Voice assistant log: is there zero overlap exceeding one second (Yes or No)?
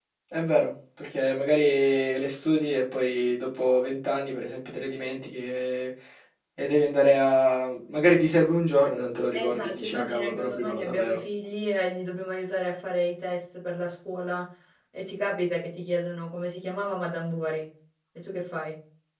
No